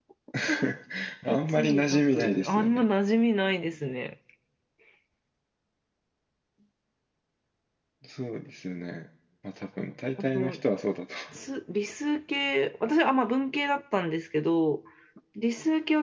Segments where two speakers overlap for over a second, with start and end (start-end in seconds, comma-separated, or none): 1.3-2.9